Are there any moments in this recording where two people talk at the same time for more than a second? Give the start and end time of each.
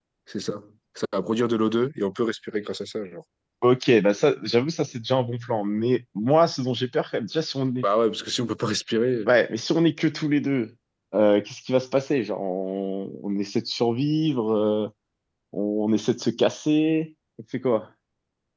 none

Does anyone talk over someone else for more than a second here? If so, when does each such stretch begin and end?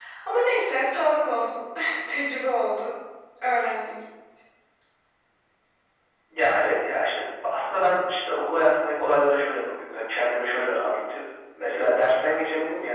none

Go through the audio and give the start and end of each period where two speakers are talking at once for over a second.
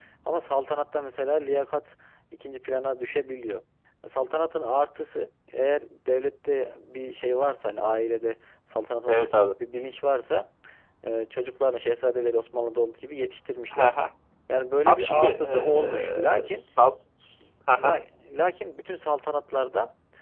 14.9-16.6

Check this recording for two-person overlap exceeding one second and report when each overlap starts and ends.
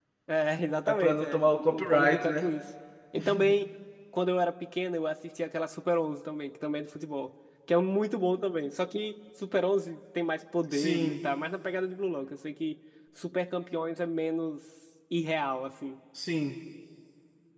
0.8-2.5

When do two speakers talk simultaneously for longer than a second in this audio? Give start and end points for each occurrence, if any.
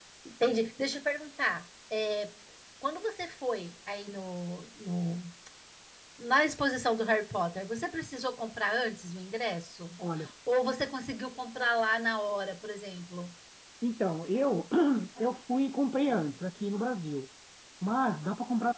none

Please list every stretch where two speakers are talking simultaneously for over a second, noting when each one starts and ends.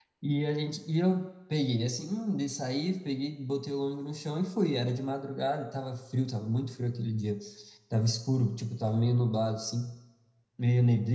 none

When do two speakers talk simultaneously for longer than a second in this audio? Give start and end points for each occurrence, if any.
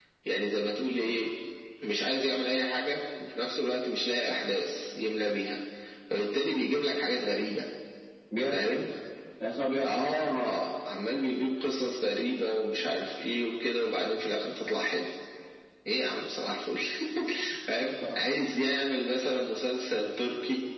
none

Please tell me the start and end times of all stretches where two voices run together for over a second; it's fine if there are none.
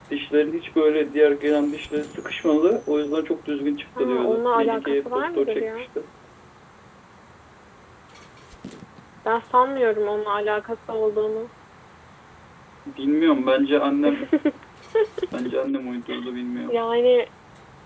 4.0-5.8

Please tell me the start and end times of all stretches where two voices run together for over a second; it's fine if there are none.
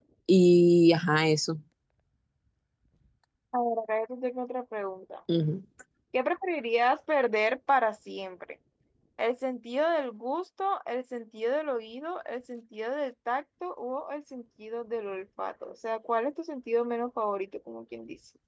none

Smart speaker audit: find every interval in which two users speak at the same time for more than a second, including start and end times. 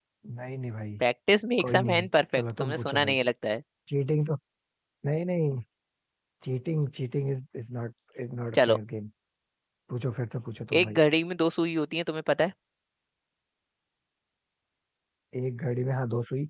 1.6-3.1

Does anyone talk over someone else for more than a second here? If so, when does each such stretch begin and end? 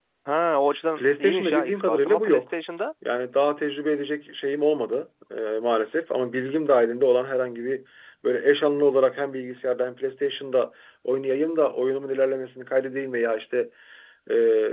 1.0-2.5

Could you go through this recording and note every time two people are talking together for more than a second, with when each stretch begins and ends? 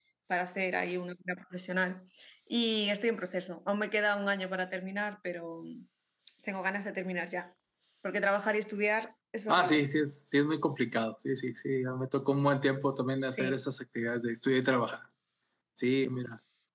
none

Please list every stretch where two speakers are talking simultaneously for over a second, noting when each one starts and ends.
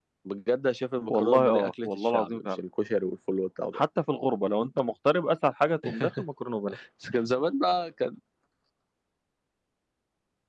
1.1-2.6

